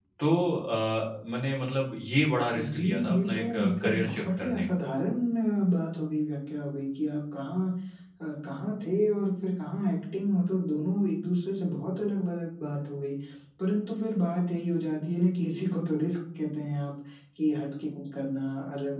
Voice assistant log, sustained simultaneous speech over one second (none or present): present